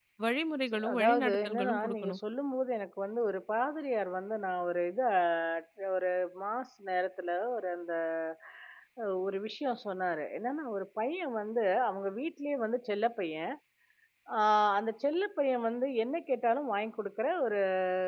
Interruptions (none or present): present